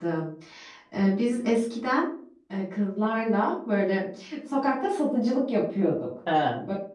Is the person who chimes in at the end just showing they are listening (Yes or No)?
Yes